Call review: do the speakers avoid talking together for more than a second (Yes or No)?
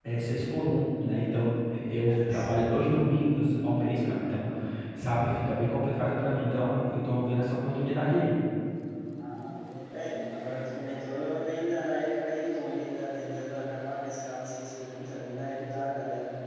Yes